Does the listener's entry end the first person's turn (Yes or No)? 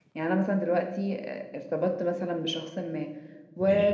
No